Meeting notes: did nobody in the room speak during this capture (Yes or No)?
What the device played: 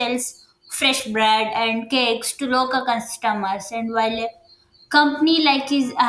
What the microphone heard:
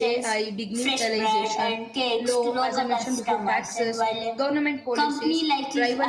No